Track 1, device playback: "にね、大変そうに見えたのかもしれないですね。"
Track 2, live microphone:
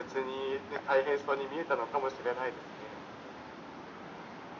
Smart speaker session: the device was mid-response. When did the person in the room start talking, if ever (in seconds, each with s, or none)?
none